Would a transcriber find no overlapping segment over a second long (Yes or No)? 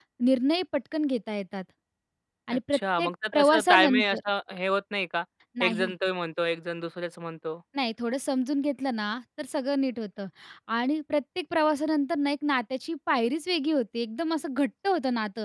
No